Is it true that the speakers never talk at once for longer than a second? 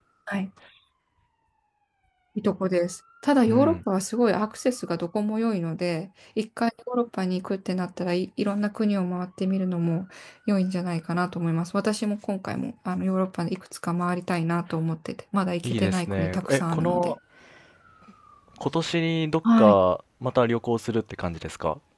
No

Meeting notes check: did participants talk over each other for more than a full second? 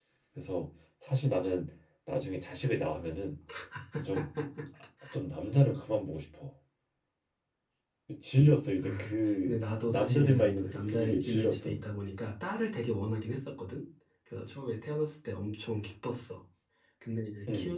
Yes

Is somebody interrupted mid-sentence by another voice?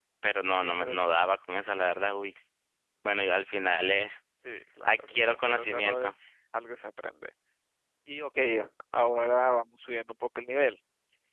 Yes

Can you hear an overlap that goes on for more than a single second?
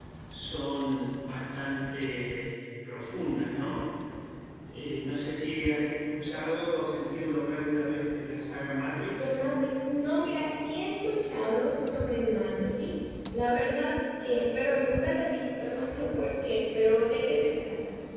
No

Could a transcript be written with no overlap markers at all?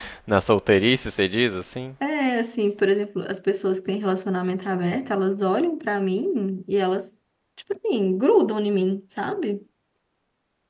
Yes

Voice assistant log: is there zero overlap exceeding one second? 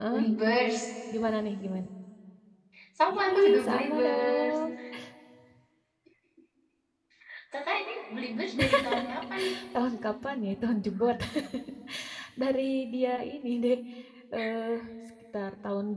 No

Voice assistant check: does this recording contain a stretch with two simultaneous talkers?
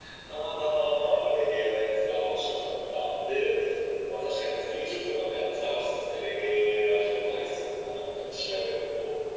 No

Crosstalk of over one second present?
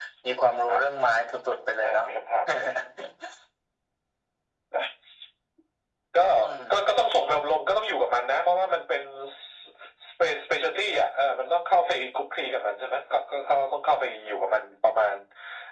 No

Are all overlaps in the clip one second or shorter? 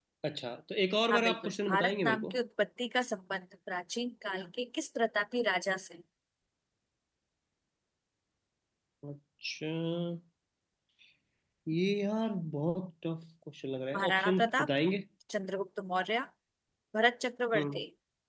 No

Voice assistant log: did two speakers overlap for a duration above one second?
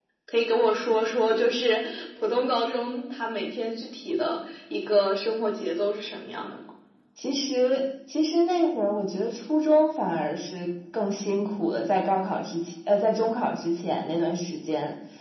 No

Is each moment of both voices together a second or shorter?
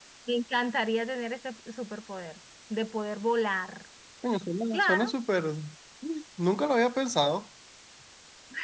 Yes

